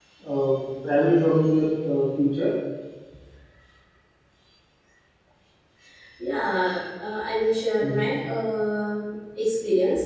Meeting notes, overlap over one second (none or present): none